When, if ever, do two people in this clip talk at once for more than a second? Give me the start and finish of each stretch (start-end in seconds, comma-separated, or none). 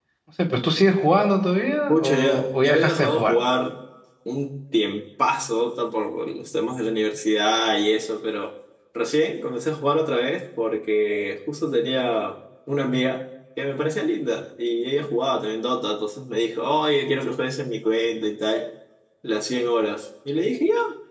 1.9-3.4